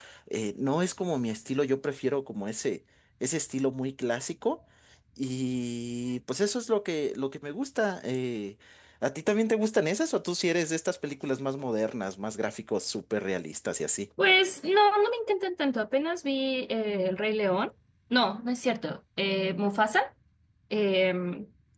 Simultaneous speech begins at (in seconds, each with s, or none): none